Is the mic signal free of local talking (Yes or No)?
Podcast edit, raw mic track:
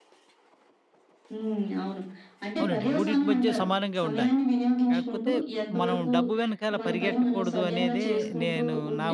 No